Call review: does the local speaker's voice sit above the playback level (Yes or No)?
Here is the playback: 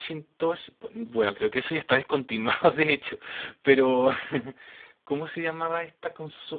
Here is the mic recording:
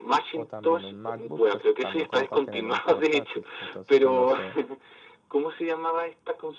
No